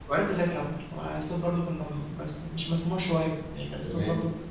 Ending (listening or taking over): listening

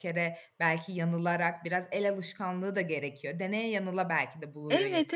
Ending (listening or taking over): taking over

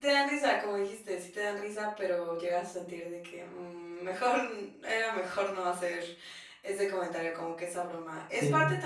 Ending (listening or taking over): listening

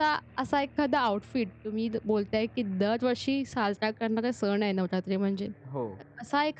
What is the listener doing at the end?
listening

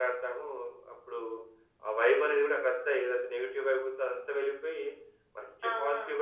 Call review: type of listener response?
listening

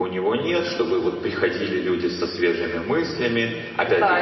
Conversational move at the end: taking over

